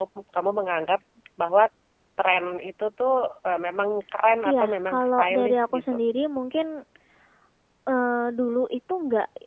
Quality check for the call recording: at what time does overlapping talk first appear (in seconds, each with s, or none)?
4.5 s